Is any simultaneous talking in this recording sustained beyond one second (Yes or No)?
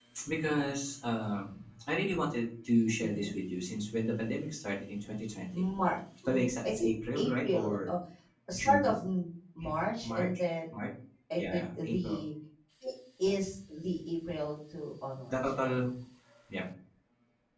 Yes